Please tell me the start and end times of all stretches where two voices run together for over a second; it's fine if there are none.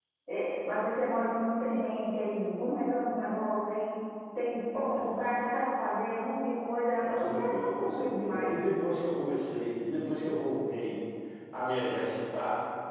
7.0-8.5

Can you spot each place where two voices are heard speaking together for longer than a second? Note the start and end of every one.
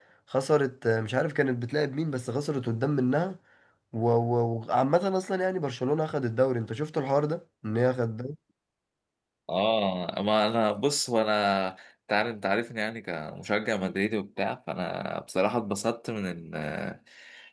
none

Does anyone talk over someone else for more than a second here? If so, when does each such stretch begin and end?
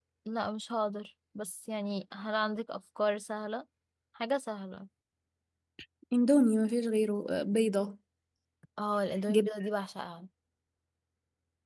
none

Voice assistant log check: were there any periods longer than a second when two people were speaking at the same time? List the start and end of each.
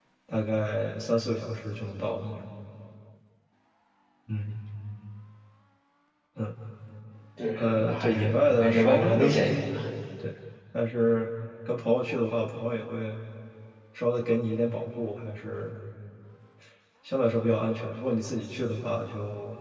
7.6-9.7

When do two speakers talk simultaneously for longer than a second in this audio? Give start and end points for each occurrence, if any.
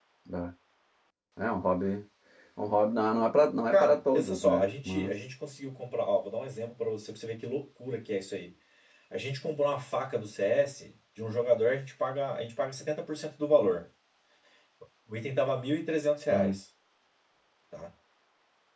3.7-5.1

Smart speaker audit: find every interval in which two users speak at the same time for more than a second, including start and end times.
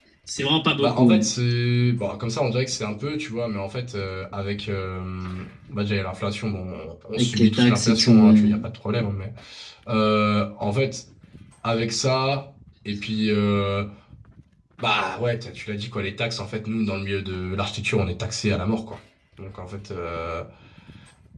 7.2-8.5

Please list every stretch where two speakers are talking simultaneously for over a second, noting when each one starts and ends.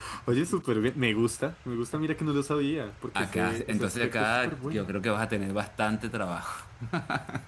3.1-4.9

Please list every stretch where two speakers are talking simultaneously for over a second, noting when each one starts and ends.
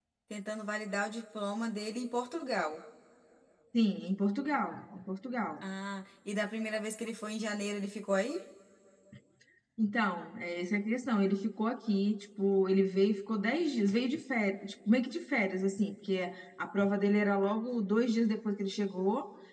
none

